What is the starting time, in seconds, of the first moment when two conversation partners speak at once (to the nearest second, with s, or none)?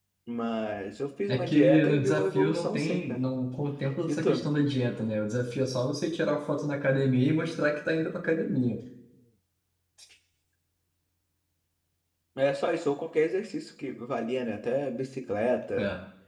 1 s